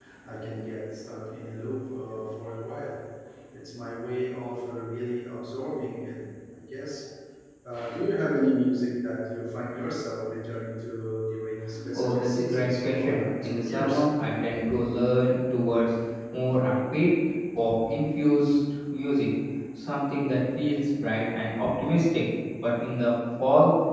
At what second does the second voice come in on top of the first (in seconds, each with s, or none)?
11.9 s